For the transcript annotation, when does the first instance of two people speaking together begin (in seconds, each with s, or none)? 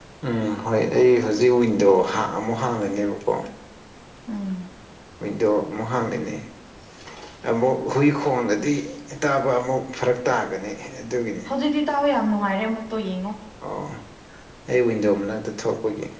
none